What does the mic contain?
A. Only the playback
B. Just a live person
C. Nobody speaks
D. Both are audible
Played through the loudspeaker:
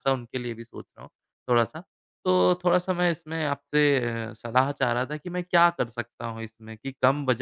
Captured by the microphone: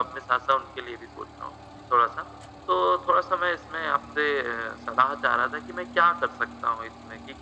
A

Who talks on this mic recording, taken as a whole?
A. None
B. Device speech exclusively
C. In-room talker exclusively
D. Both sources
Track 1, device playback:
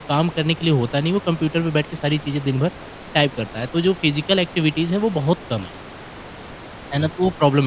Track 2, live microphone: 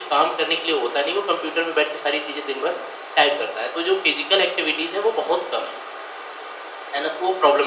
B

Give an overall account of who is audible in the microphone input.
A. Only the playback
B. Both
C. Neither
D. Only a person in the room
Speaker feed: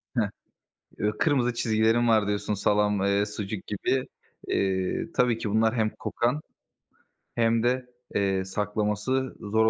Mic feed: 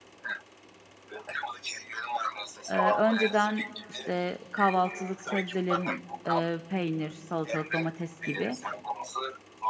B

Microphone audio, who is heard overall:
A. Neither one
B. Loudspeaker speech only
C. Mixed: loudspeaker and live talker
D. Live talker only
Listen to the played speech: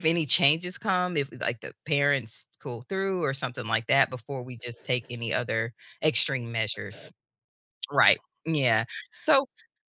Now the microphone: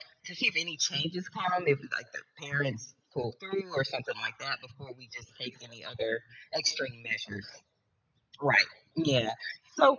B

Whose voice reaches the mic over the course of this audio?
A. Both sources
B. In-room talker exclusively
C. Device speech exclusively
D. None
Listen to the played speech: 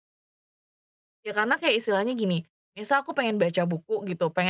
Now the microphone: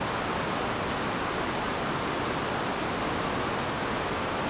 D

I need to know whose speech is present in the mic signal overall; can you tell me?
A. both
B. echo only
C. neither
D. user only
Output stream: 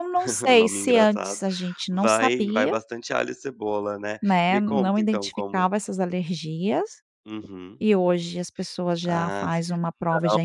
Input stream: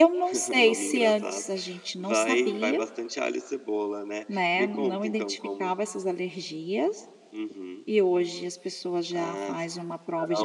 B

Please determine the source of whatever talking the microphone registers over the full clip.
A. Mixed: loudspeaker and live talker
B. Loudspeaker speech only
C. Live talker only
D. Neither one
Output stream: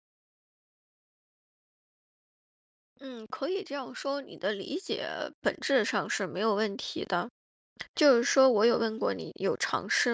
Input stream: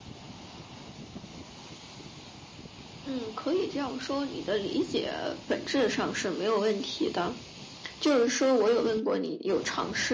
B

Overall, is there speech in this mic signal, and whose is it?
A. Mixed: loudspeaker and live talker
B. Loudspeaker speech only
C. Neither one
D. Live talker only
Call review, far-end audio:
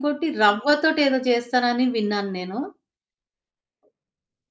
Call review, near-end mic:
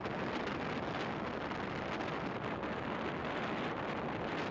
C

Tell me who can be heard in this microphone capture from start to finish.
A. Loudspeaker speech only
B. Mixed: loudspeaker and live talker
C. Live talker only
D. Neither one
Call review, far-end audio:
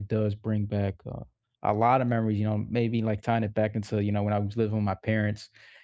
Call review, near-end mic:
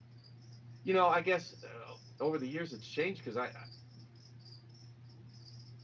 C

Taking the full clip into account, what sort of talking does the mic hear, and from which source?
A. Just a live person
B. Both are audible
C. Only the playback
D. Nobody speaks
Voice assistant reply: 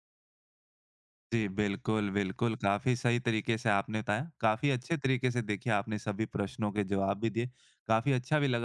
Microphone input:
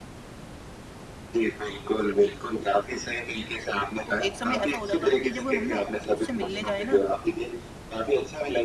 B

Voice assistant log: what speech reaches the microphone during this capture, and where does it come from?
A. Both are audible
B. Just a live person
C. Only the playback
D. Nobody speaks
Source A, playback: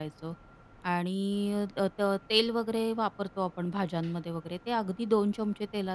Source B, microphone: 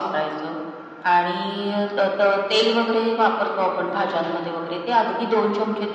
C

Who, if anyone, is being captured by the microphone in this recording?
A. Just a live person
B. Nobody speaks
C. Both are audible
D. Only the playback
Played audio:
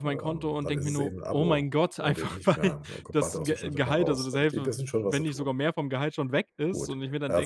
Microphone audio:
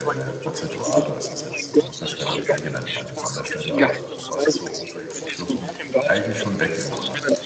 C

